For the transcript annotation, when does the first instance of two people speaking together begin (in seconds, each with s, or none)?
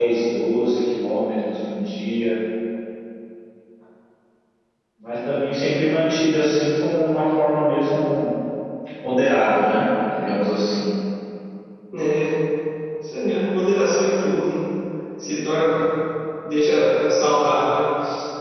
none